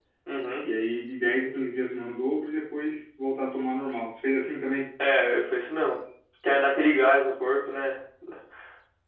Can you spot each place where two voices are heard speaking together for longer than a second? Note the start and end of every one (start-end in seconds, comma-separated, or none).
none